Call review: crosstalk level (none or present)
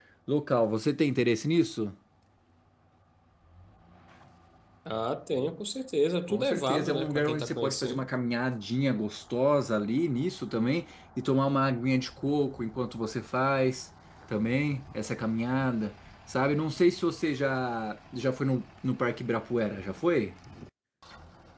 present